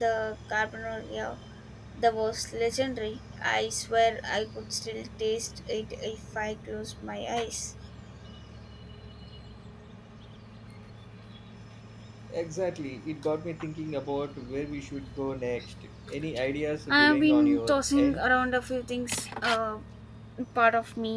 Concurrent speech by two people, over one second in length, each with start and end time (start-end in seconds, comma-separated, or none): 16.9-18.2